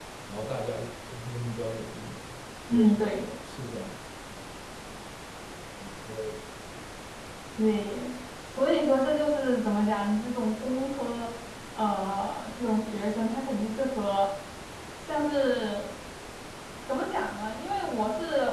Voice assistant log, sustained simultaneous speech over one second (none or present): none